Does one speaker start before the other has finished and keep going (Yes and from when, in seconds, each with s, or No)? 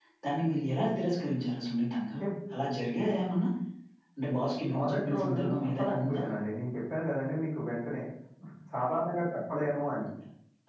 Yes, from 4.8 s